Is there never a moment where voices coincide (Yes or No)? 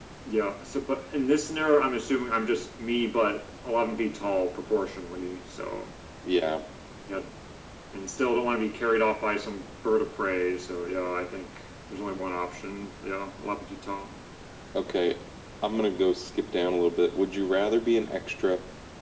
Yes